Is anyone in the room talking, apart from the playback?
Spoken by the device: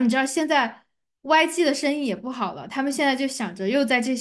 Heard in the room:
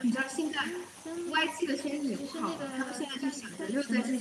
Yes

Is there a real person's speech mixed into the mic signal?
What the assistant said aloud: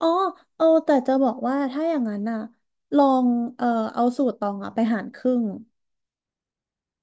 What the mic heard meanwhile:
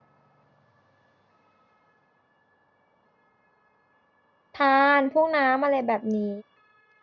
Yes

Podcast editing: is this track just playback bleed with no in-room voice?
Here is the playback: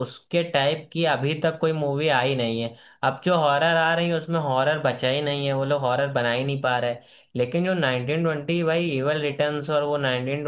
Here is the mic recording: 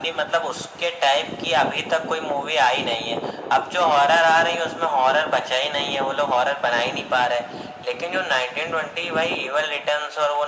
Yes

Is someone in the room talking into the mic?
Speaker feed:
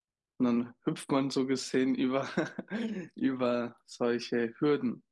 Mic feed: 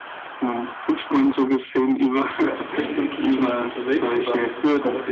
Yes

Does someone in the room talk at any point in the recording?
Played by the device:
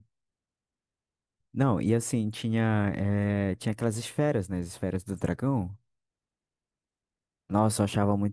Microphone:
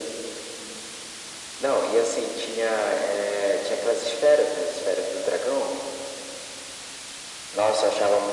No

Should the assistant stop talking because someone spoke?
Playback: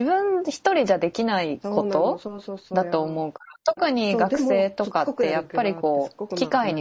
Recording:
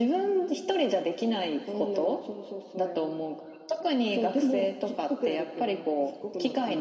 No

